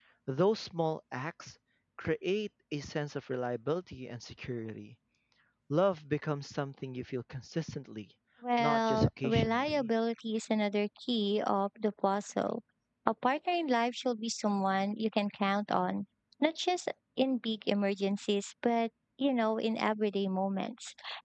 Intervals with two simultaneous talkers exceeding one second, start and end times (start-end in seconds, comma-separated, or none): 8.6-9.9